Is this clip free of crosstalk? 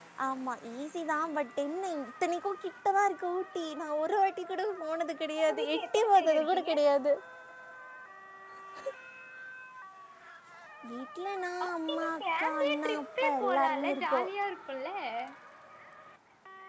No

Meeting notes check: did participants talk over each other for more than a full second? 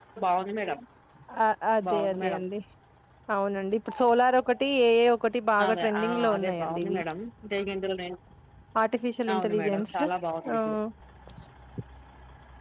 Yes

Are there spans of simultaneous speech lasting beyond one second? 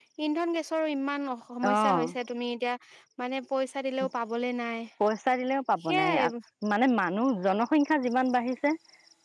No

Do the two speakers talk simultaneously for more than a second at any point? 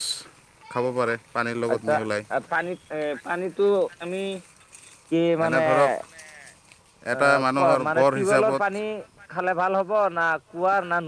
Yes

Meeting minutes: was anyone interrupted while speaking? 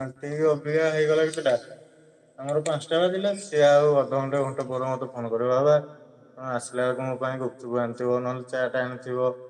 No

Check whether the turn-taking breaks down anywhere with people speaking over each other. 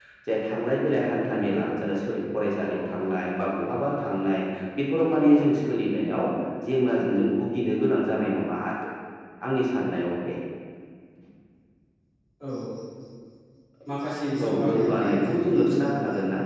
Yes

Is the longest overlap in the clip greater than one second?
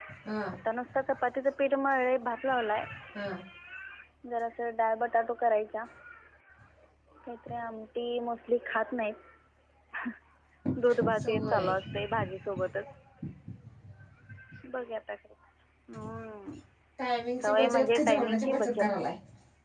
Yes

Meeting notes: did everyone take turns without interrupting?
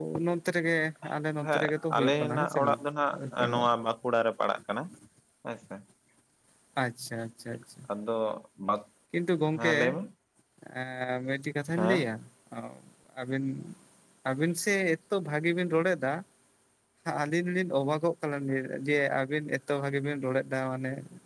No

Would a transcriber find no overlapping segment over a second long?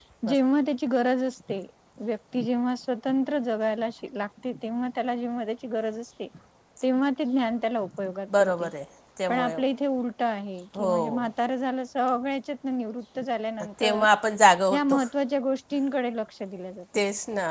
Yes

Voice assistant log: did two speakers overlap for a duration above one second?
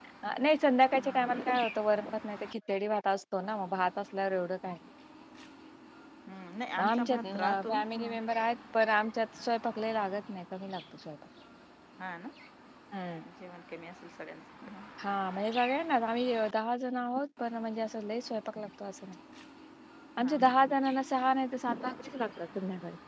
Yes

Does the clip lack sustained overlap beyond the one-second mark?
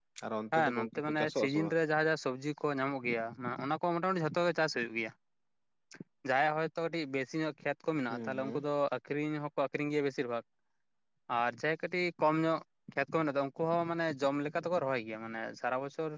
No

